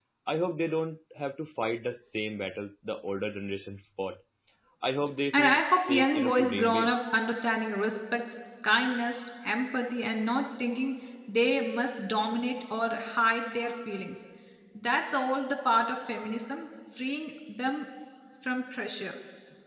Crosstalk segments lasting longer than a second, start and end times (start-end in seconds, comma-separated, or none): 5.3-6.9